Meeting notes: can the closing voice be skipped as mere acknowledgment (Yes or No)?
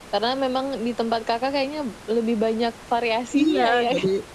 No